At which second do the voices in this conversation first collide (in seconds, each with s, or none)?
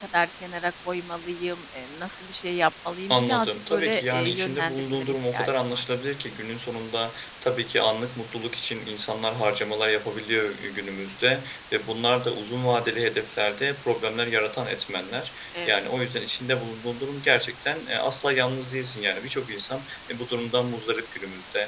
3.1 s